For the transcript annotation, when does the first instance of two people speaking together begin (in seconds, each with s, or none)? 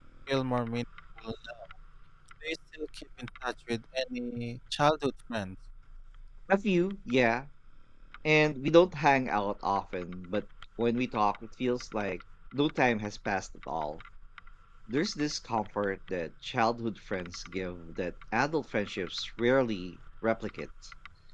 none